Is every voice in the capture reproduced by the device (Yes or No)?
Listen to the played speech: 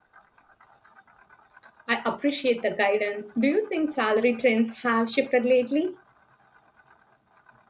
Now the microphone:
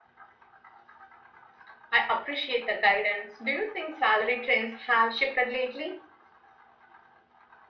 Yes